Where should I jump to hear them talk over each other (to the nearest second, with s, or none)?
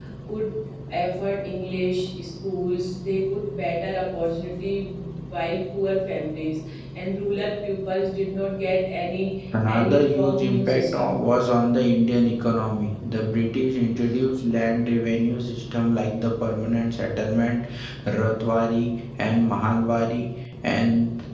10 s